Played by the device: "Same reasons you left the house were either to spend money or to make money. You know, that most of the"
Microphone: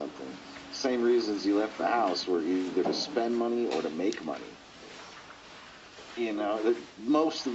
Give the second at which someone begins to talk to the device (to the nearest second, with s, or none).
none